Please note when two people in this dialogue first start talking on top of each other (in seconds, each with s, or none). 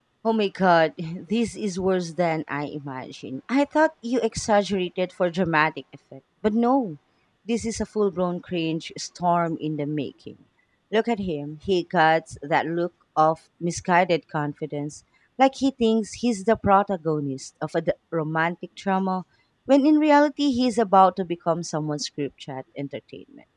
none